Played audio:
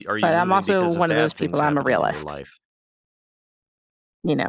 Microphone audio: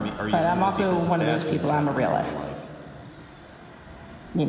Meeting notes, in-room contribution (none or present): none